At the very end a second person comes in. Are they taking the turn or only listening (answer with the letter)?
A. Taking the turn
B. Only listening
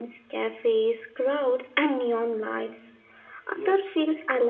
B